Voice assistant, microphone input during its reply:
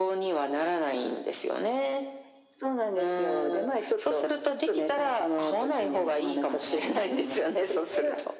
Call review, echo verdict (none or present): present